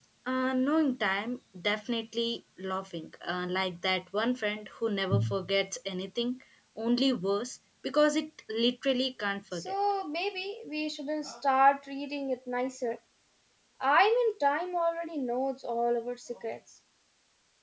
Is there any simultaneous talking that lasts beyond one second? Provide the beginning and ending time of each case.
none

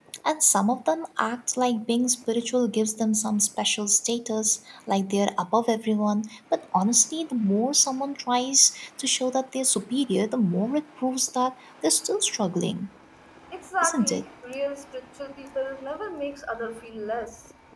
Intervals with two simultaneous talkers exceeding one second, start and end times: none

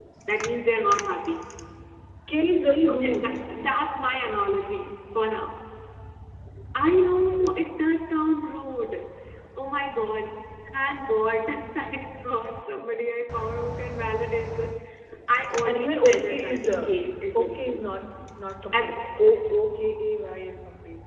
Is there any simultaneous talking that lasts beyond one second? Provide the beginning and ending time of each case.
15.7-16.9

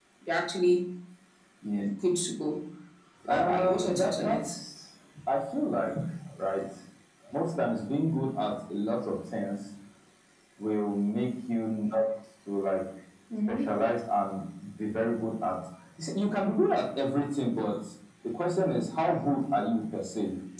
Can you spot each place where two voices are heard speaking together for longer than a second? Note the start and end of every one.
3.3-4.6

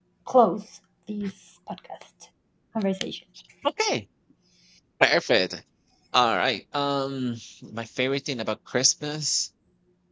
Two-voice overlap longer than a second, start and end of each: none

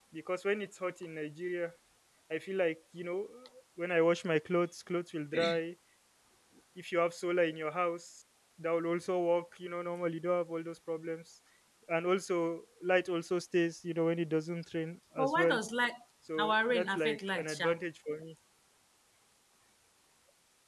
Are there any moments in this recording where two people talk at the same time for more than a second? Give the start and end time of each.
16.4-17.8

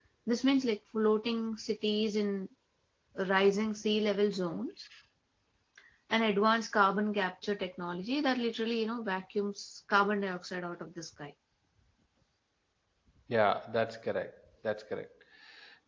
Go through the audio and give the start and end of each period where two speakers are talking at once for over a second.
none

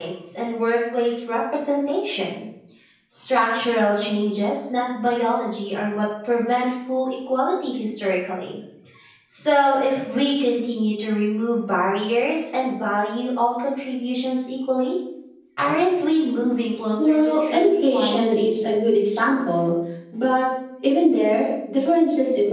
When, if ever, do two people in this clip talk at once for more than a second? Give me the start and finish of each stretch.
17.1-18.5

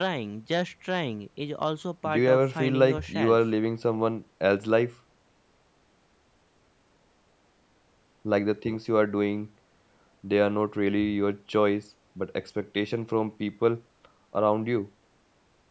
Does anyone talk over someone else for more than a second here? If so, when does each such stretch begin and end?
2.1-3.4

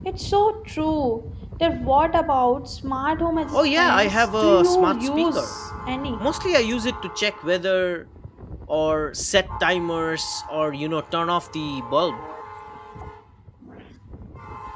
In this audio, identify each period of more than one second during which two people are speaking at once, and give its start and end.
3.5-5.5

